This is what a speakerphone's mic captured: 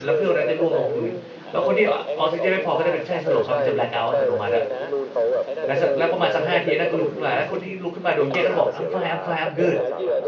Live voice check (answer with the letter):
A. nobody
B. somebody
B